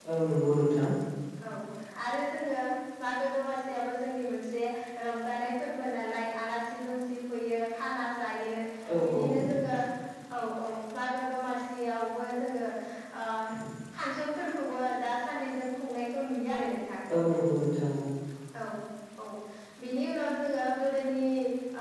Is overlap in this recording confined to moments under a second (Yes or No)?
Yes